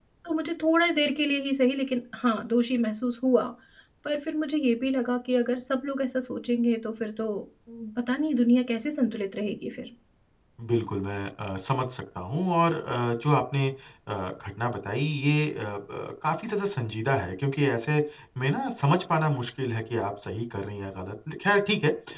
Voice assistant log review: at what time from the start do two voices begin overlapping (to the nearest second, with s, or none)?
none